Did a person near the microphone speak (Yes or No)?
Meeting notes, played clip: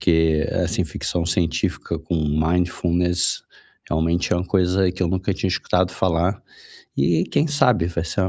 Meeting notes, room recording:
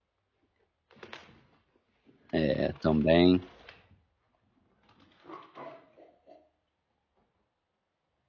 Yes